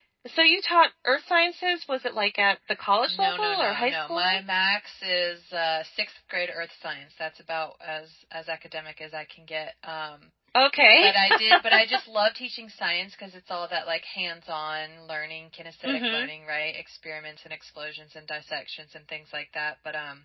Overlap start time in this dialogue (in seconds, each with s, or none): 3.1 s